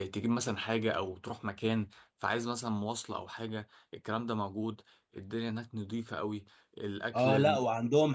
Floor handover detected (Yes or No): Yes